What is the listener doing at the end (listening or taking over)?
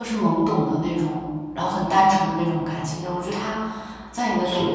listening